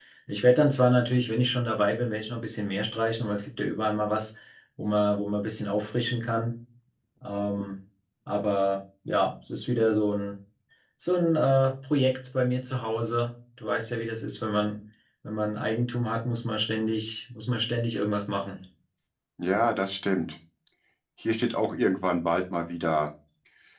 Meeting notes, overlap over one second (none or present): none